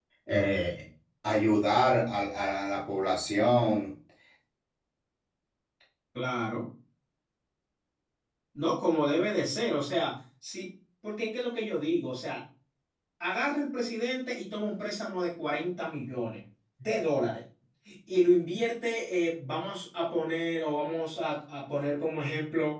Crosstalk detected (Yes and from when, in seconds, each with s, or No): No